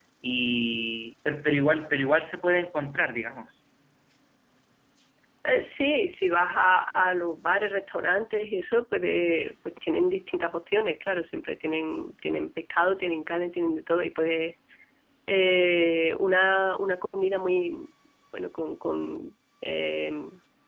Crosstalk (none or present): none